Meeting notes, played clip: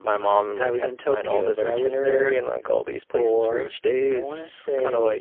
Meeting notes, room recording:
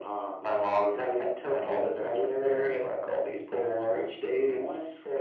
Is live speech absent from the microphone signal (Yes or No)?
Yes